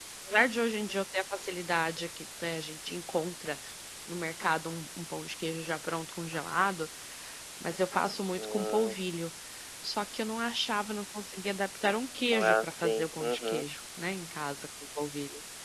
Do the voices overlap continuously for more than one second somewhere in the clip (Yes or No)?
Yes